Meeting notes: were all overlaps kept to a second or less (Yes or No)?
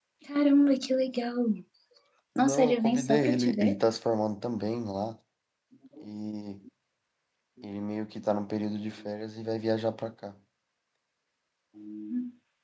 No